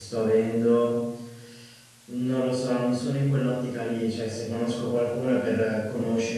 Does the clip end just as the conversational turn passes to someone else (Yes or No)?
No